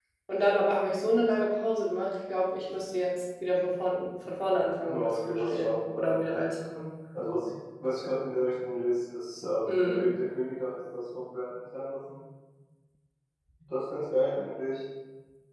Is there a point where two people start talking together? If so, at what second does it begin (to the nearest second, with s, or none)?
5 s